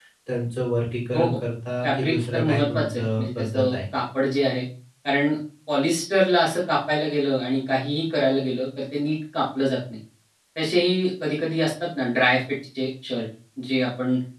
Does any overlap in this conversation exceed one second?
Yes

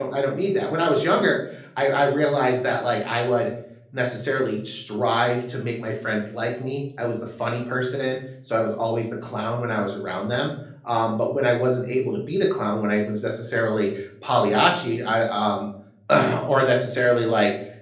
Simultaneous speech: No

